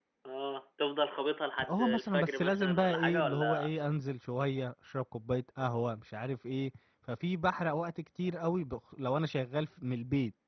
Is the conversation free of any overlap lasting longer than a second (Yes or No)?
No